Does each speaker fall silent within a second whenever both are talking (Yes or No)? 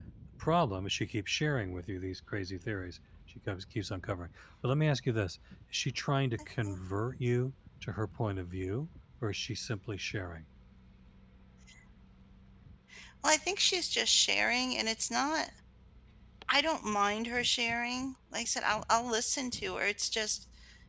Yes